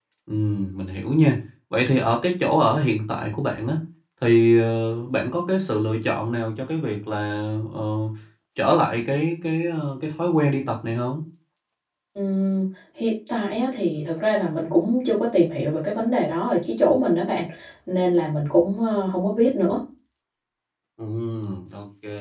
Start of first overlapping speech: none

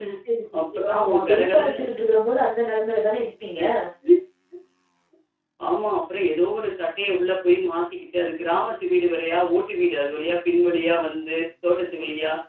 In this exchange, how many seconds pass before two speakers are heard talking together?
0.6 s

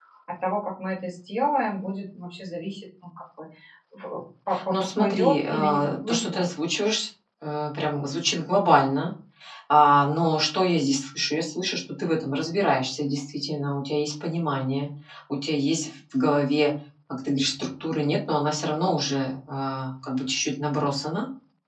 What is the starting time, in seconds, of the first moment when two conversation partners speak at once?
4.7 s

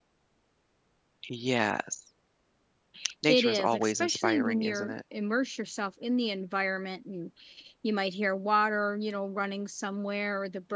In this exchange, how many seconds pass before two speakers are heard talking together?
3.3 s

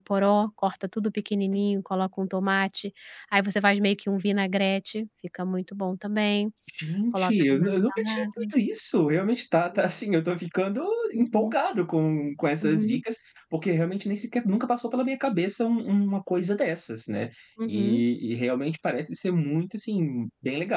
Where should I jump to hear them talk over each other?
7.1 s

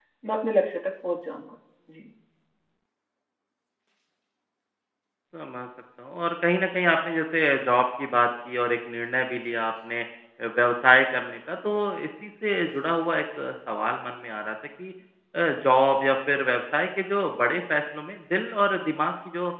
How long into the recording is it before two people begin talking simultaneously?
none

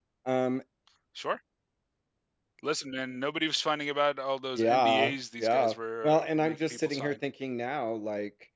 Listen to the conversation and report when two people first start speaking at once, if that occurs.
4.6 s

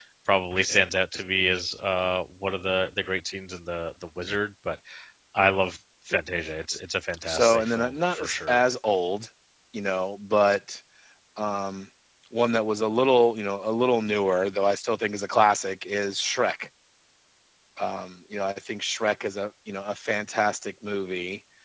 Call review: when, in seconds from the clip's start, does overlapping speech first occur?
7.3 s

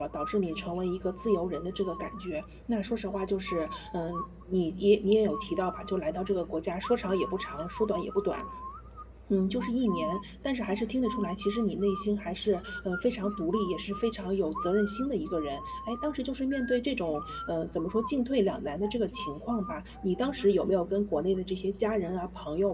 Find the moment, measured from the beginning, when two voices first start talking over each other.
none

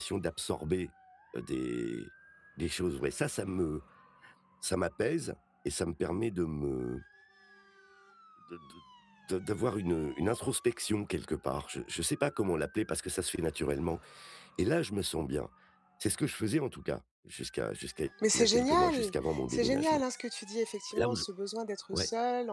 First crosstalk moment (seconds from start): 18.2 s

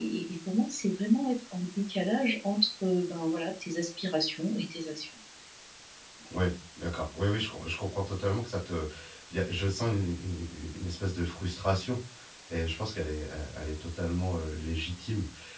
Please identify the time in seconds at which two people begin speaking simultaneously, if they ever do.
none

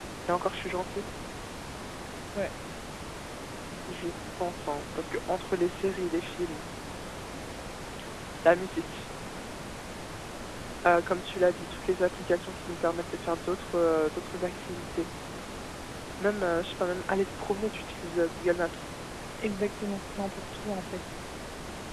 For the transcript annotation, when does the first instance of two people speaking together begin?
none

